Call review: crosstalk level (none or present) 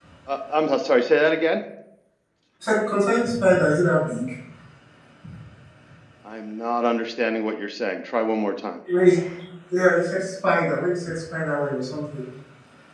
none